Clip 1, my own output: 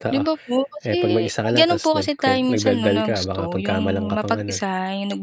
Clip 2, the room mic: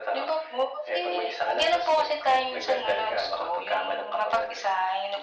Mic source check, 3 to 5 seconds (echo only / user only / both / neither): echo only